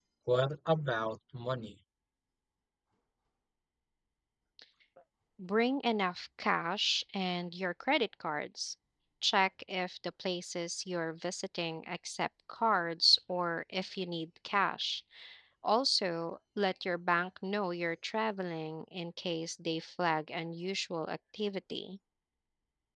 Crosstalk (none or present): none